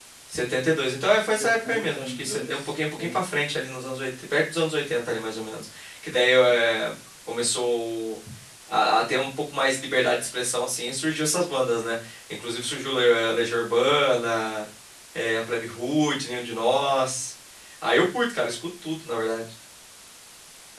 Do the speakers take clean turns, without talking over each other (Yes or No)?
No